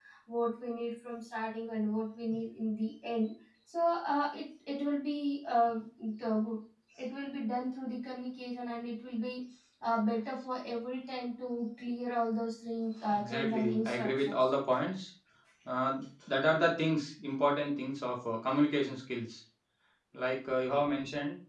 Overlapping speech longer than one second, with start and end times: 13.1-14.4

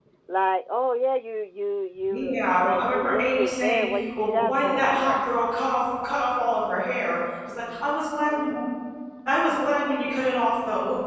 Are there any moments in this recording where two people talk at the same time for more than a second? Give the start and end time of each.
2.1-5.2

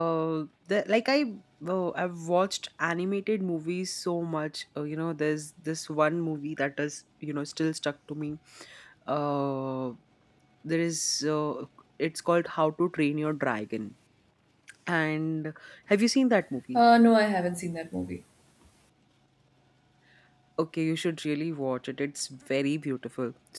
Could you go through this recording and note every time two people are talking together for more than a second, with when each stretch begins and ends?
none

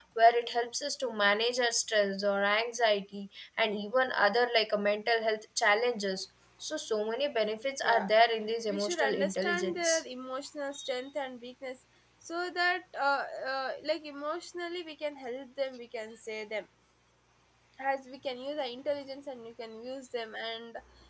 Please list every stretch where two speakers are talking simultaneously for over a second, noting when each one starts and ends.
8.7-10.0

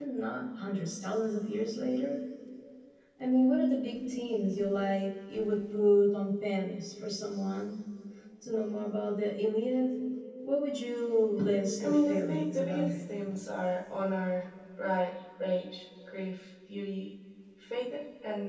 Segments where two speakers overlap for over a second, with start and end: 11.8-13.1

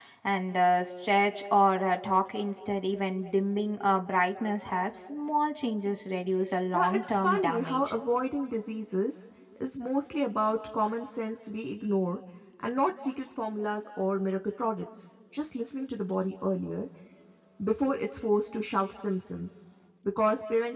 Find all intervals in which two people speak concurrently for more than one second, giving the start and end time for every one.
6.7-8.0

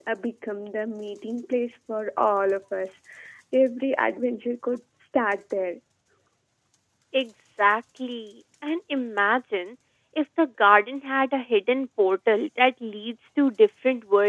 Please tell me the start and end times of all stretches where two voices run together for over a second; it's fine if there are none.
none

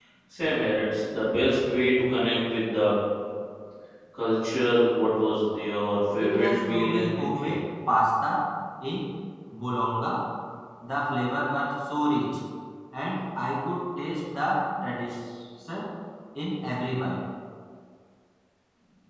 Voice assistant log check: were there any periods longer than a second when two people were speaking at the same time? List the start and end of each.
6.2-7.6

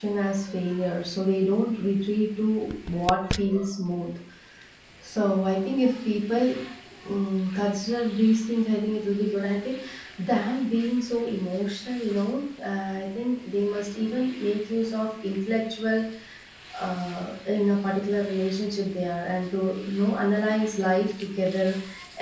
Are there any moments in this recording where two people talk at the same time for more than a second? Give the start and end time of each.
none

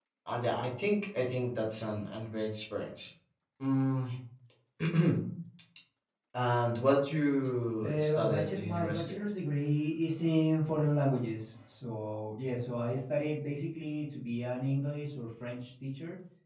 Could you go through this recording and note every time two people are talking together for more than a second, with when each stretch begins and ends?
7.8-9.2

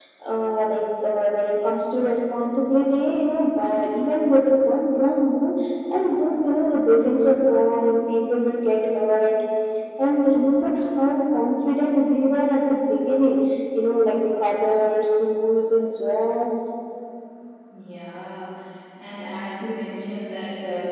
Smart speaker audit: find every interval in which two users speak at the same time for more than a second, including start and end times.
none

